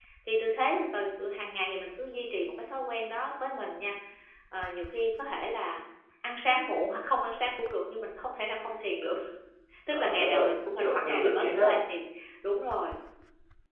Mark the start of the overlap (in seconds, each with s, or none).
9.9 s